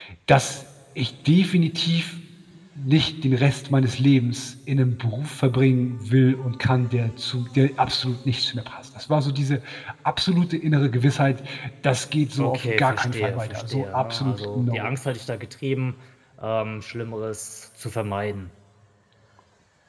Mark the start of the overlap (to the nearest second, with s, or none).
12 s